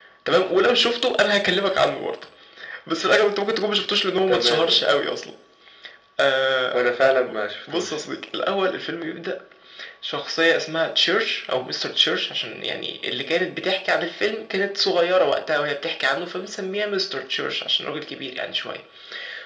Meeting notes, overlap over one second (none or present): none